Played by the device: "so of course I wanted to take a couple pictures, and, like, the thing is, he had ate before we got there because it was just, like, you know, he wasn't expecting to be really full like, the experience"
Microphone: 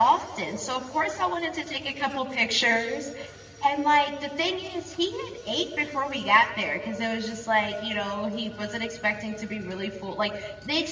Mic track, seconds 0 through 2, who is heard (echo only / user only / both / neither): echo only